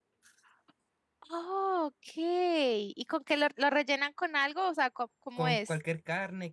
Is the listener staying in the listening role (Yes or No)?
No